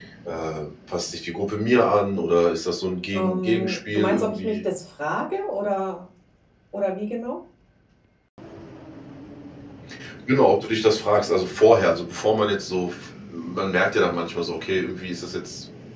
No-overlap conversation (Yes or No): No